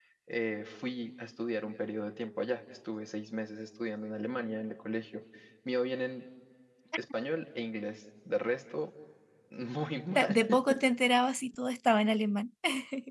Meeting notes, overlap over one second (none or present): none